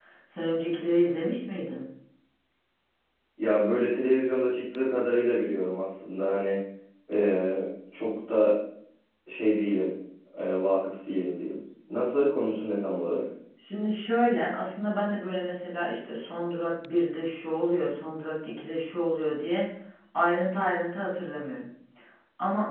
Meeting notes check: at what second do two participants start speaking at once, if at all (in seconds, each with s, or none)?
none